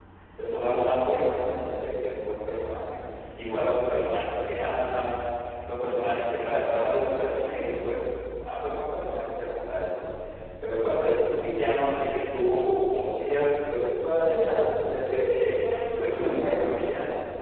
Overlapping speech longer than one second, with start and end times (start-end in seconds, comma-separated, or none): 14.1-15.8